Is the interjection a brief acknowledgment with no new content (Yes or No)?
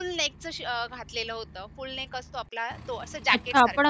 No